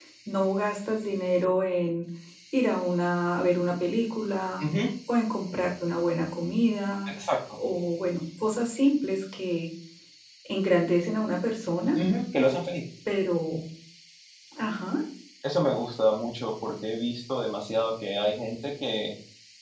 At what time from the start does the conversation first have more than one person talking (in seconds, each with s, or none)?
none